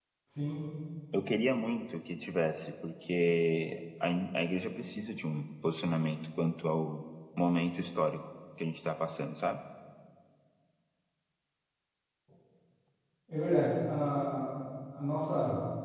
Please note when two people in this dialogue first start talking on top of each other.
none

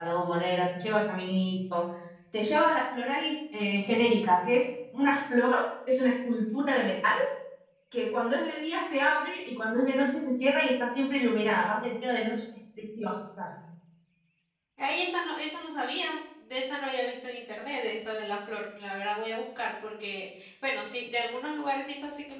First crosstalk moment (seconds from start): none

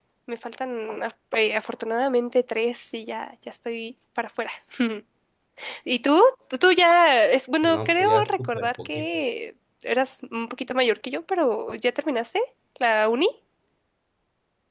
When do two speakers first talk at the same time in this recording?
7.6 s

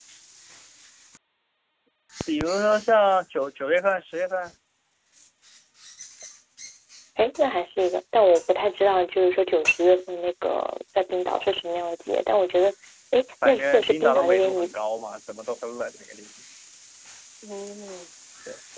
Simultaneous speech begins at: 13.4 s

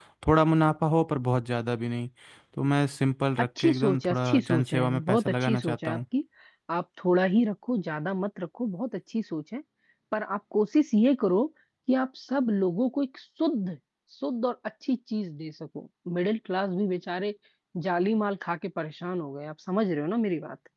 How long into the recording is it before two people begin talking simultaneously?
3.4 s

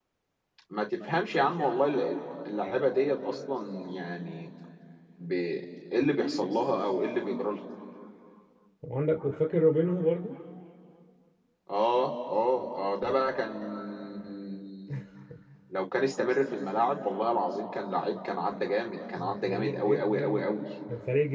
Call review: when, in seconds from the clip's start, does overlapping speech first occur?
19.2 s

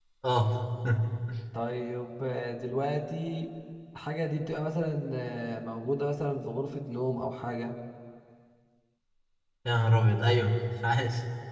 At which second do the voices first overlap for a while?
none

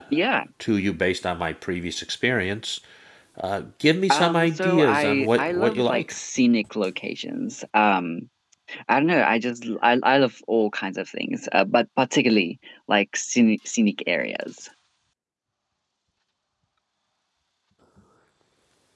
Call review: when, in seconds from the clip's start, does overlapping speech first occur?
4.1 s

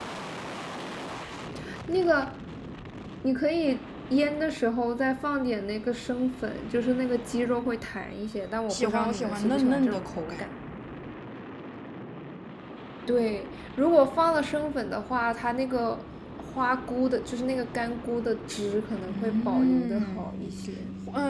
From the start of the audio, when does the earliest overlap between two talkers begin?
8.7 s

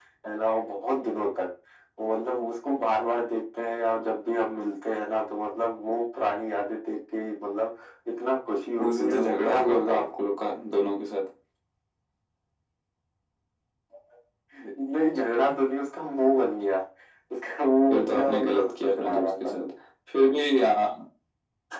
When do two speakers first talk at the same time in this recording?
8.8 s

